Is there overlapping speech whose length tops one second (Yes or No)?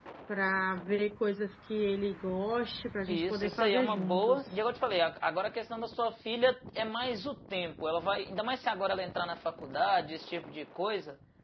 Yes